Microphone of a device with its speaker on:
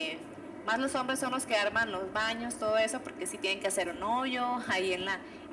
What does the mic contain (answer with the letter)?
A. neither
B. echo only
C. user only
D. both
B